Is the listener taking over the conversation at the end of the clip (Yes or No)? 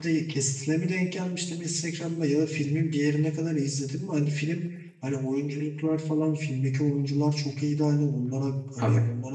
No